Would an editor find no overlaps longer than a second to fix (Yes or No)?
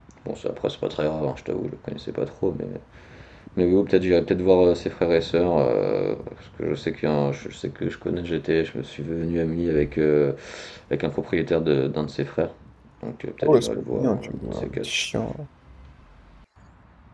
No